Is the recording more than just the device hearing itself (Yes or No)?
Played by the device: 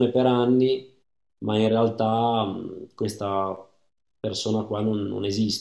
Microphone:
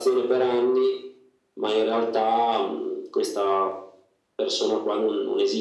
No